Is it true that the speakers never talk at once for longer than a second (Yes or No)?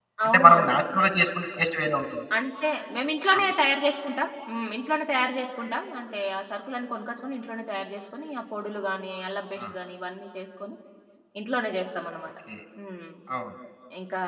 Yes